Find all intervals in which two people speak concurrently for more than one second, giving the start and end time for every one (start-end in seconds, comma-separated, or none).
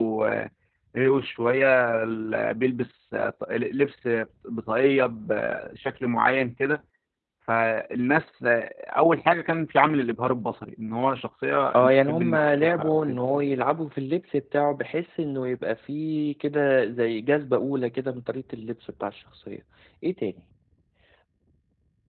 11.7-13.2